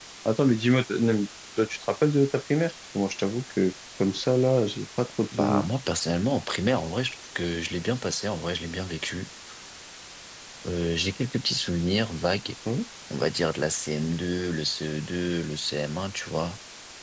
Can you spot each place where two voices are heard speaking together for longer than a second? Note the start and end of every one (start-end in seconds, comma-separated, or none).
none